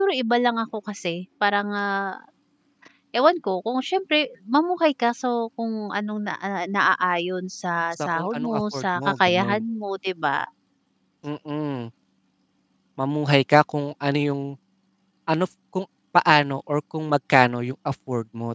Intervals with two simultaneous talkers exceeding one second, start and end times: 7.9-9.6

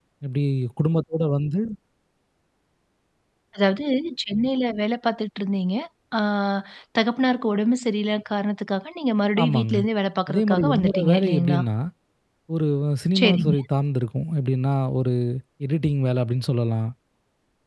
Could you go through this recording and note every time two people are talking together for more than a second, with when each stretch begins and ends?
10.3-11.6

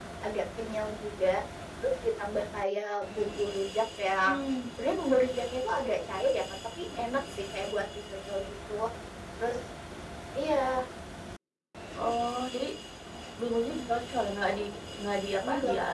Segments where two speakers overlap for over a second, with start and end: none

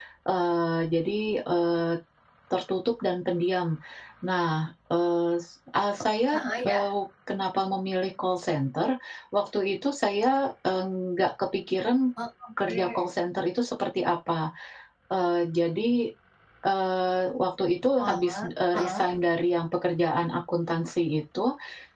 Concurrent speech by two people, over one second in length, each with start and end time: none

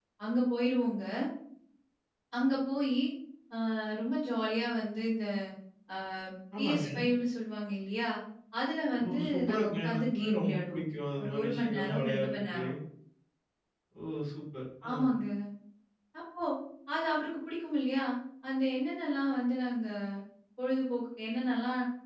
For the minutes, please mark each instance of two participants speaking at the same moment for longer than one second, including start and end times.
9.0-10.8, 11.2-12.6

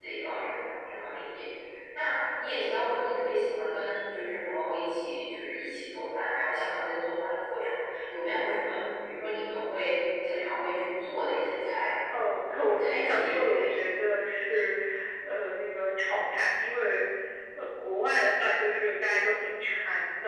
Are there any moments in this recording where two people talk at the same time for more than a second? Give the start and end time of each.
12.5-13.8

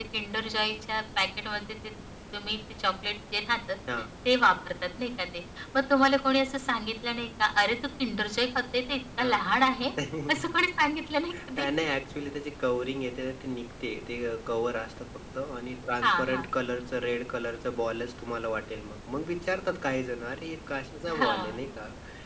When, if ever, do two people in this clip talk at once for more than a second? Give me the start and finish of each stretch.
none

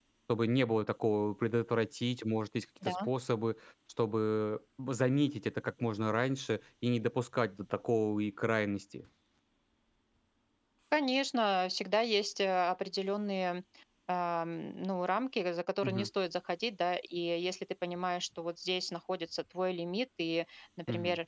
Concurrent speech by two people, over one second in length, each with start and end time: none

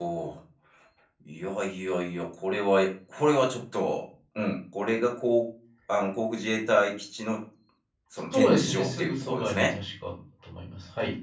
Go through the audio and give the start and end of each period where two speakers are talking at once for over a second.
8.3-9.8

